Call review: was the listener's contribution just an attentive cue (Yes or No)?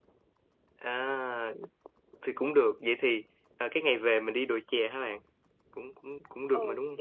No